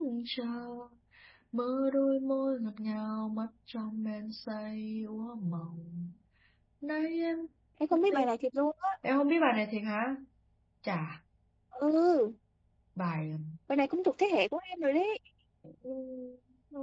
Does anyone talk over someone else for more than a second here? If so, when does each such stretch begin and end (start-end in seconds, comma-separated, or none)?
none